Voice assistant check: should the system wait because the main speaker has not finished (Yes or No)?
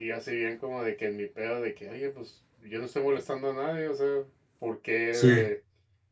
Yes